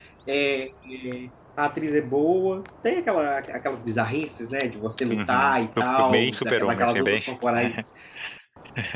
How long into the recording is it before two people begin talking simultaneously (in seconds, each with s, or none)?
5.1 s